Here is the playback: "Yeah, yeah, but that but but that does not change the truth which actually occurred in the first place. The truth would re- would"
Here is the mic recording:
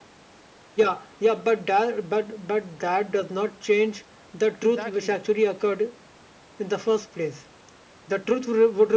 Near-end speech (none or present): present